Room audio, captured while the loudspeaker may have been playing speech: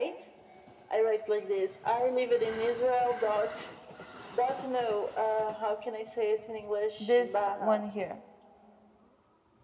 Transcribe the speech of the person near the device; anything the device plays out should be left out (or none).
this one here.